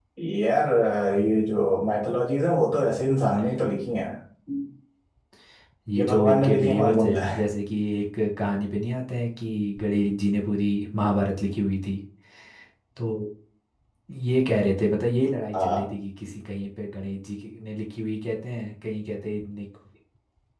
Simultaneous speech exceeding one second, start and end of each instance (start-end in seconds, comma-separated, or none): 6.0-7.4